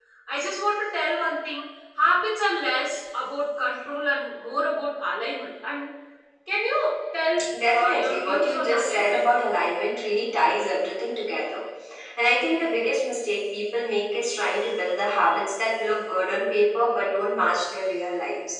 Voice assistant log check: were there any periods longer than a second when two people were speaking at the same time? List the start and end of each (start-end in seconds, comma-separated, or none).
7.7-9.2